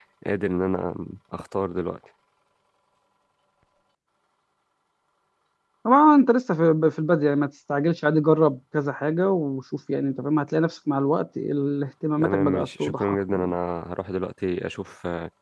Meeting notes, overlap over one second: present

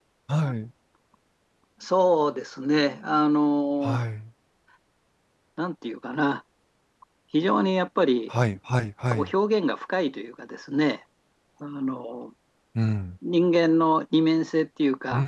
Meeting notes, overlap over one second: none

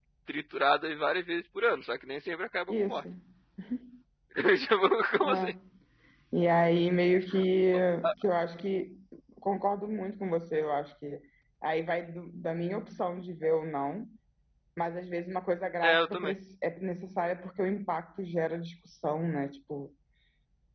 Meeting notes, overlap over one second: none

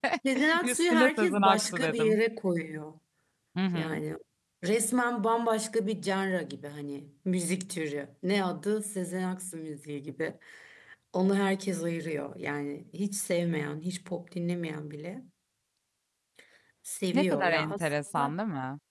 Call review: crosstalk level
present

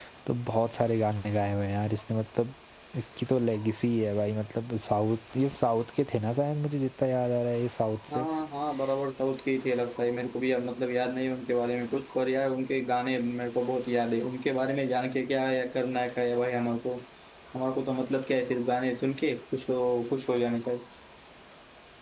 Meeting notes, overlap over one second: none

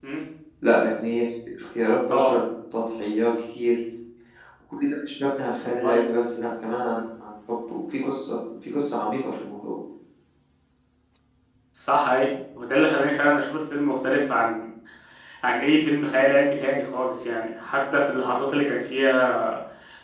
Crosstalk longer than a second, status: none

